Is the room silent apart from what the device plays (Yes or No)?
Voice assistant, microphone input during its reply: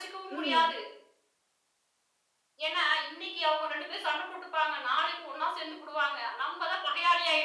No